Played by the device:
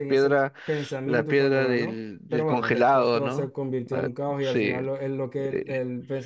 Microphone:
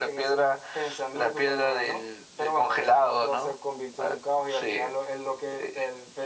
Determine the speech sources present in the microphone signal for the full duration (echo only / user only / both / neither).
echo only